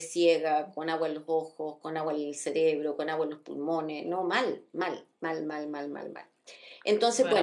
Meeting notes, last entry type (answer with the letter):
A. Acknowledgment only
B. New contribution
B